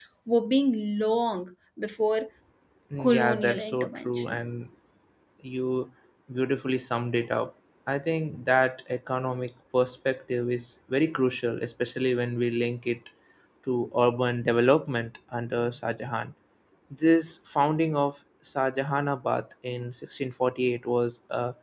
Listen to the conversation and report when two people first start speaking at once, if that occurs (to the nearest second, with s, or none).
3 s